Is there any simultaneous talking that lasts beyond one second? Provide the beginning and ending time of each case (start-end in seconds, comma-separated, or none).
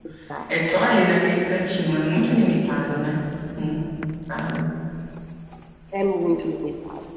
none